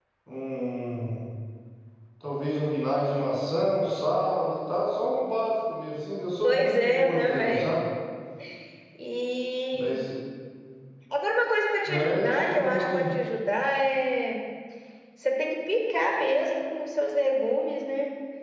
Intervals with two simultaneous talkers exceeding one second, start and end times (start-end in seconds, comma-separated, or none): 6.4-7.7, 11.9-13.1